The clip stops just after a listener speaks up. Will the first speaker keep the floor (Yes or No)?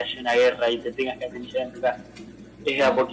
Yes